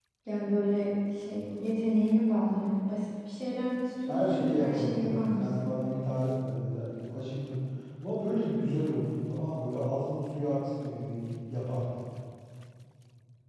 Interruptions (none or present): present